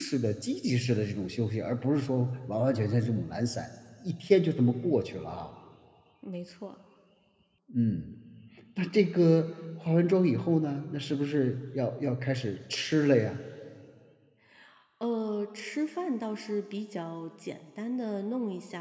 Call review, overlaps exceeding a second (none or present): none